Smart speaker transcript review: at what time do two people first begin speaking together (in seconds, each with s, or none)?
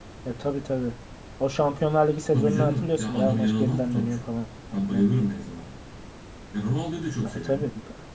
2.3 s